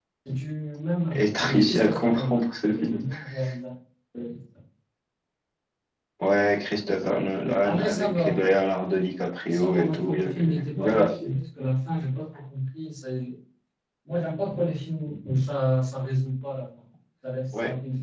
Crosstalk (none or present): present